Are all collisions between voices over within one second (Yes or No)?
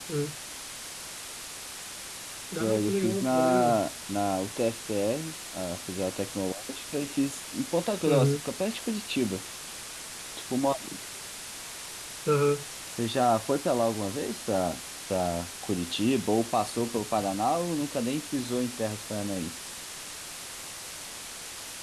No